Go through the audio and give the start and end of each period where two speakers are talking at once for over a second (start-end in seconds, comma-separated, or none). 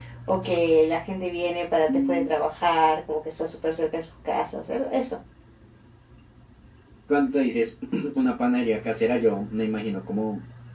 none